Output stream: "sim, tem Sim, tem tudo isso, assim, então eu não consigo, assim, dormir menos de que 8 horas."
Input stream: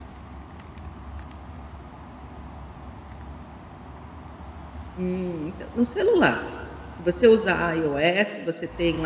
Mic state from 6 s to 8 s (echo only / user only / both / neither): user only